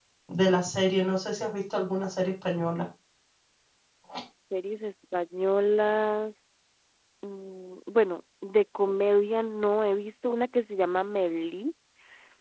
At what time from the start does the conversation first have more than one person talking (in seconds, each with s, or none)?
none